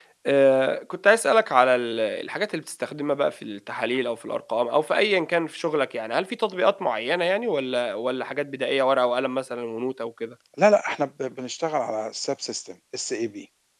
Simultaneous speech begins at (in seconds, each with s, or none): none